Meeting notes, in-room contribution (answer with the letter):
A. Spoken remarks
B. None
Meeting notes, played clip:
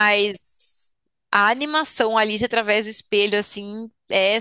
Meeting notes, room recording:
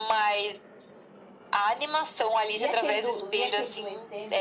A